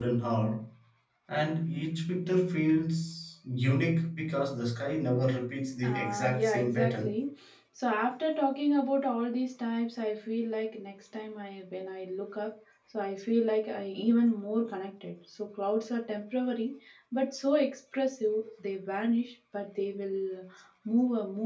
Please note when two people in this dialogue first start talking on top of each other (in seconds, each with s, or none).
5.8 s